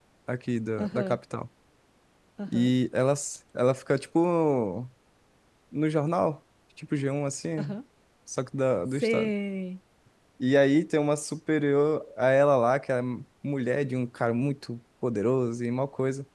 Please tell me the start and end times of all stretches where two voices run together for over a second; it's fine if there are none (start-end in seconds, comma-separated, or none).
none